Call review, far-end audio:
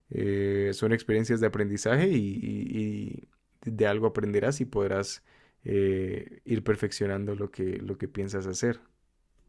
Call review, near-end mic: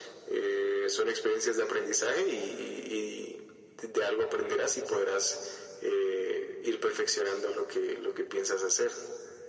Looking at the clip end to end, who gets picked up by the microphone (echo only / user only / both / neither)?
echo only